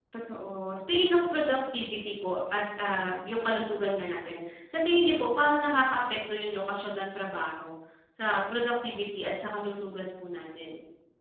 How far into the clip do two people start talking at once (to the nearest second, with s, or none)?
none